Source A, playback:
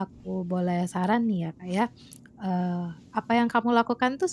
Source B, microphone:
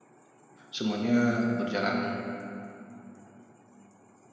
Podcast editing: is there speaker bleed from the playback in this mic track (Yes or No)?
No